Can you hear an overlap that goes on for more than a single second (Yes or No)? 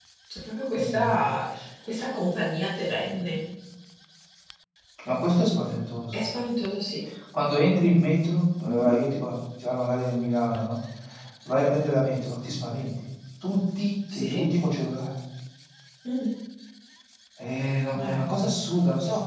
No